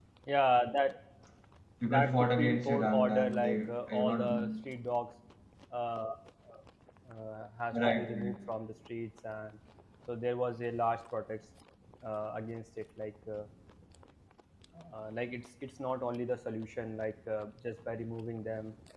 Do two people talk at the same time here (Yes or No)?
Yes